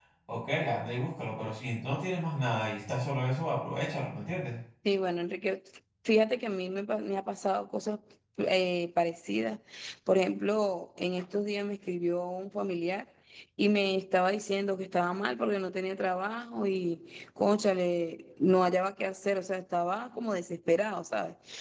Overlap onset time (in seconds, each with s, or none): none